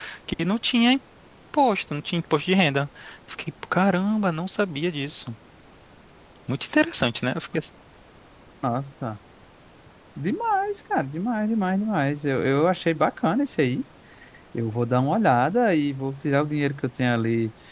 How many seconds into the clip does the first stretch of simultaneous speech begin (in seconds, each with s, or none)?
none